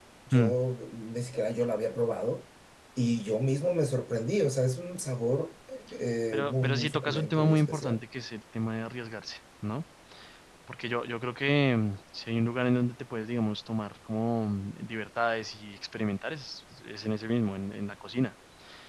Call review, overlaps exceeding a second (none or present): present